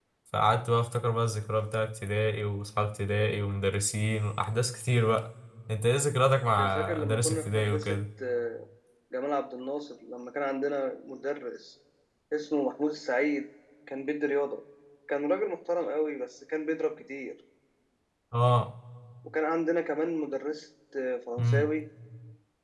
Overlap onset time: 6.7 s

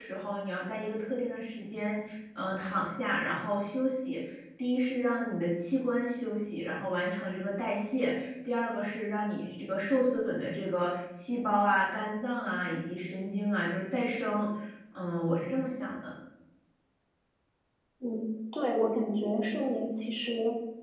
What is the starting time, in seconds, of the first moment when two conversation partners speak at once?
none

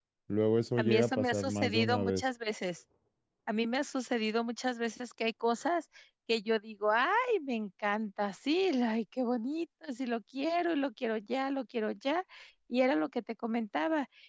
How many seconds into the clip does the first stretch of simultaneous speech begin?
0.8 s

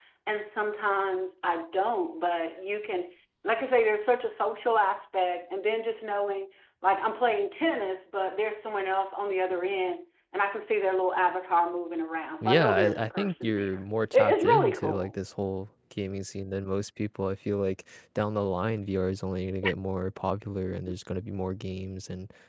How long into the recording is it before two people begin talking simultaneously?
12.4 s

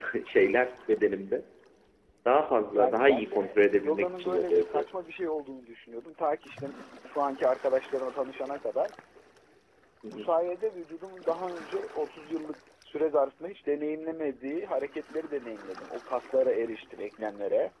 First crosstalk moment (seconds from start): 2.7 s

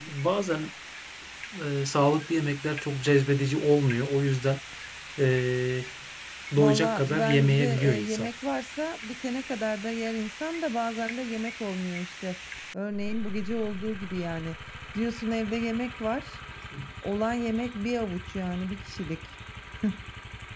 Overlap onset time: 6.6 s

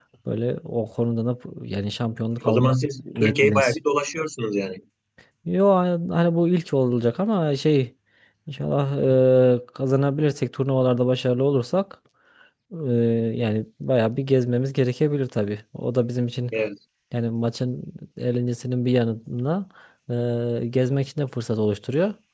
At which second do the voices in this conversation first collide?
2.4 s

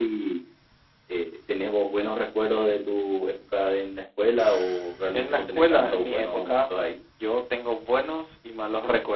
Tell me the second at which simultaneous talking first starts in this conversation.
5.1 s

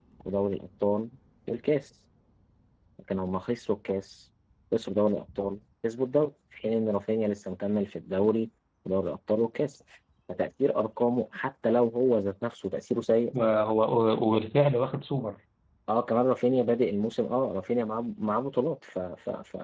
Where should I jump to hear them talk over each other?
none

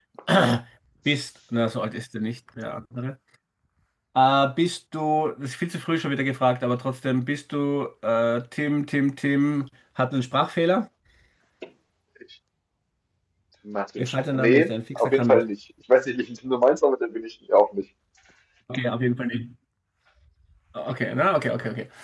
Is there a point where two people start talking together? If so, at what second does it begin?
14.0 s

